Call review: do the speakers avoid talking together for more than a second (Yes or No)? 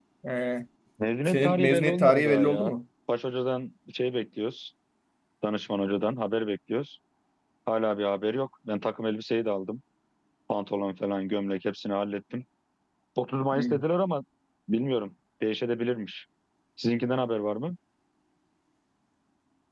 No